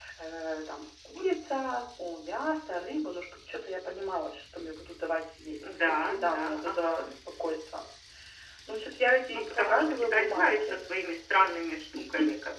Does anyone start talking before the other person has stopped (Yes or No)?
Yes